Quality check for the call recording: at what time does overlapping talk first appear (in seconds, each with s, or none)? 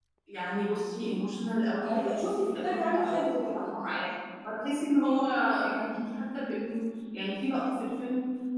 1.8 s